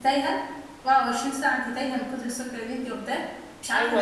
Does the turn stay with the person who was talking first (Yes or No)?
No